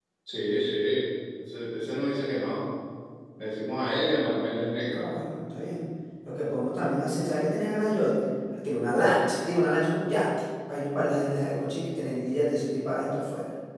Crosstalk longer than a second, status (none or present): none